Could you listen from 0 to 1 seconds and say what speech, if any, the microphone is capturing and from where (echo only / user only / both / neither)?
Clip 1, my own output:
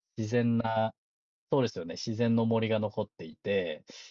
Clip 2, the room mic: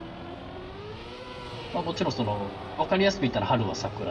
neither